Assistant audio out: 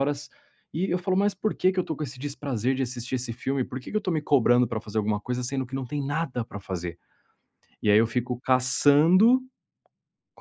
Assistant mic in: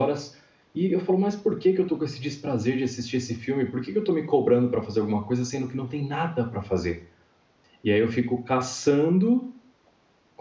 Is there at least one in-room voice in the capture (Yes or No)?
No